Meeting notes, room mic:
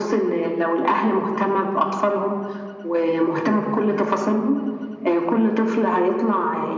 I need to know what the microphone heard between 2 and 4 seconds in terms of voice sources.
echo only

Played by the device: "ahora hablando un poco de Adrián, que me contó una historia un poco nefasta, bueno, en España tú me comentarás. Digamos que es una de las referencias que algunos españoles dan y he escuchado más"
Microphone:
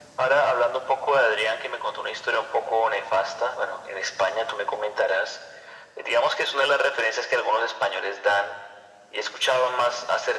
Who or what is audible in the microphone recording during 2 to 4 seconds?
echo only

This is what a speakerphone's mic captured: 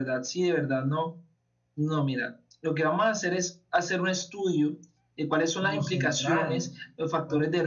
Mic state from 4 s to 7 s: both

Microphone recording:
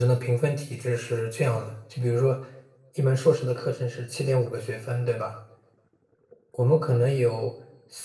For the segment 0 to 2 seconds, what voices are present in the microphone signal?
user only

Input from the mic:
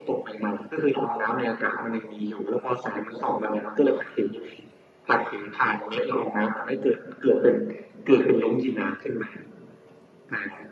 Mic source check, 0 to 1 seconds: echo only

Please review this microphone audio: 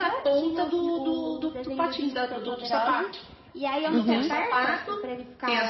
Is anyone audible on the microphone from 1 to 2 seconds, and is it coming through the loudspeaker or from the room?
echo only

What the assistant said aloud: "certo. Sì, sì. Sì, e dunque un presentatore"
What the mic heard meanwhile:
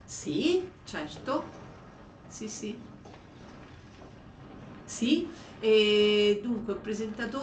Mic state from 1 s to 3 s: echo only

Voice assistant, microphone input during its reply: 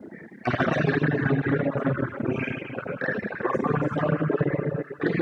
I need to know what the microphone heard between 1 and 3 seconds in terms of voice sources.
echo only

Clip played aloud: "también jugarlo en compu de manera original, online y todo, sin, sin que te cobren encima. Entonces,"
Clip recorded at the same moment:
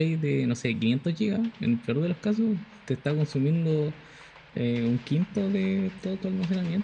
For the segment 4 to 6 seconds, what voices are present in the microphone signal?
user only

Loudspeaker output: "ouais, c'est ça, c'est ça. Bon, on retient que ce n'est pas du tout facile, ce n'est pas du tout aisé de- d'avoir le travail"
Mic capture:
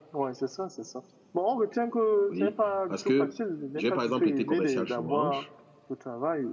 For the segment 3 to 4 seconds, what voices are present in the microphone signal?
both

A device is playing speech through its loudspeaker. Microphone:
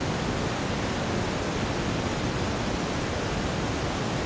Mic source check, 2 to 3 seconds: neither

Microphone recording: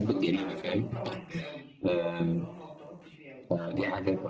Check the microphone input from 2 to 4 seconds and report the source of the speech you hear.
both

